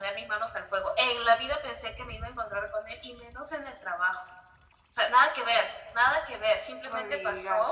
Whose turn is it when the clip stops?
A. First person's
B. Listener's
A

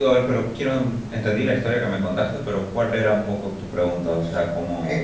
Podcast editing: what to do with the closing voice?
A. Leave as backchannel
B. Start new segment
B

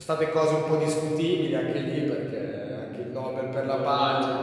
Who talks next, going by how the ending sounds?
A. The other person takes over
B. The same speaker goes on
A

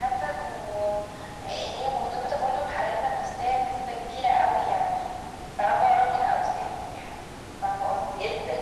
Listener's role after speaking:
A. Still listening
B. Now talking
B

